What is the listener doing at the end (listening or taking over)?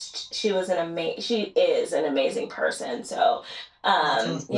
listening